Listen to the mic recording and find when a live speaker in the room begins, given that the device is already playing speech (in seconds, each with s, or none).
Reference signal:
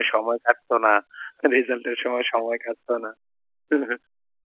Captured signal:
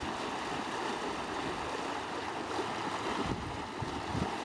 none